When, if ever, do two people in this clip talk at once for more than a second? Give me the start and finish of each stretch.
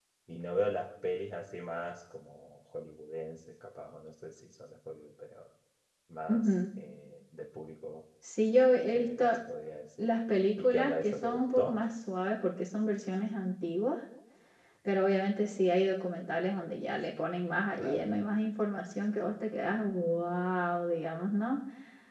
10.6-11.8

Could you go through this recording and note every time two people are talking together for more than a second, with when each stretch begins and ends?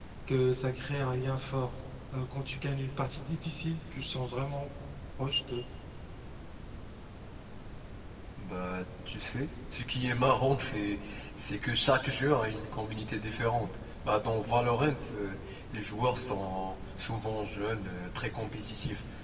none

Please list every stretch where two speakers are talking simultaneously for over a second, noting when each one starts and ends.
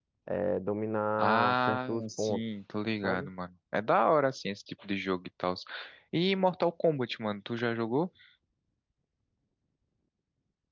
1.2-2.4

